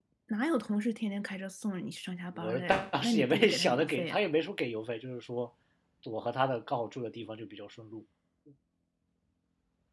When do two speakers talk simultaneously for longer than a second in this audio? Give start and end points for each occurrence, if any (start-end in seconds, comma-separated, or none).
2.4-4.2